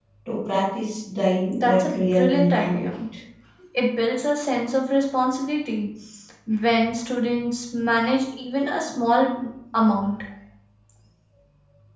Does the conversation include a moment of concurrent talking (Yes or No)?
Yes